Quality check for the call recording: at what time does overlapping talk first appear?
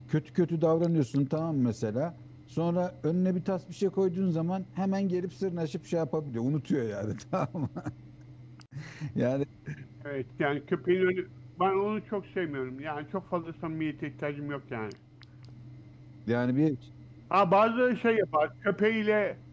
none

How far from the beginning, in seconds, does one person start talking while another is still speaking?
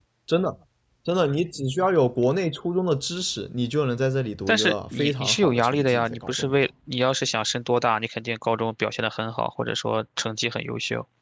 4.5 s

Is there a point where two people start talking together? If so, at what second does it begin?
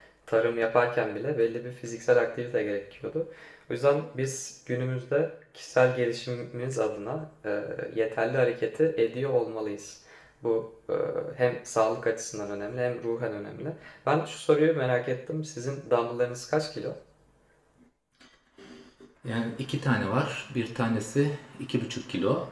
none

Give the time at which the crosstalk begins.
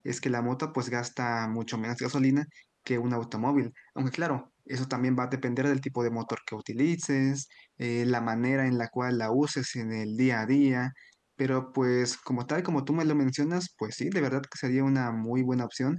none

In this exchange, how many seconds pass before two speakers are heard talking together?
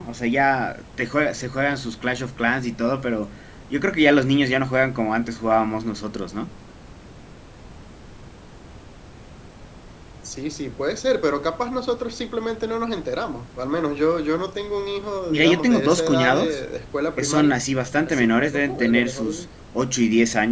15.3 s

